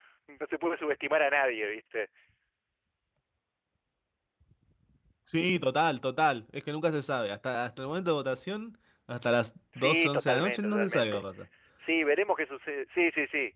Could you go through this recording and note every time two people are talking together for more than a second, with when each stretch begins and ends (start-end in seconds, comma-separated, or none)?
9.8-11.2